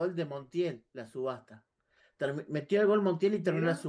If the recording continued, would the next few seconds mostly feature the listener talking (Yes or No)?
No